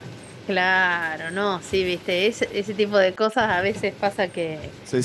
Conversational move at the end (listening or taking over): listening